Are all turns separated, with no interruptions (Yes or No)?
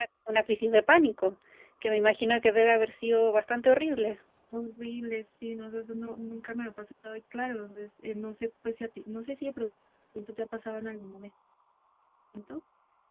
Yes